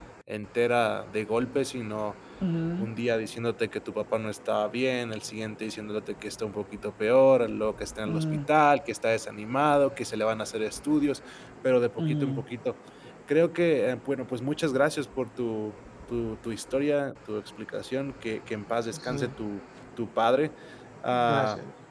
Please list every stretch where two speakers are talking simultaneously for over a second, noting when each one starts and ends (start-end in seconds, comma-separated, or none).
none